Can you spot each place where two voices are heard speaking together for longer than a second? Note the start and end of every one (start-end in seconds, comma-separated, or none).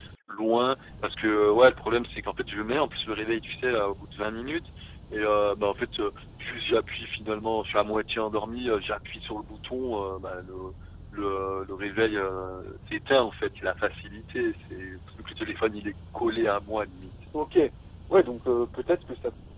none